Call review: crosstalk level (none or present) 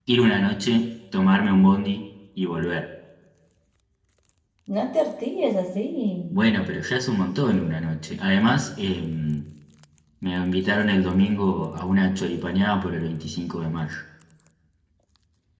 none